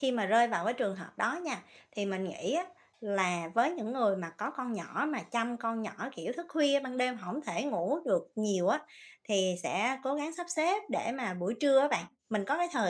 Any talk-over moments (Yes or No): No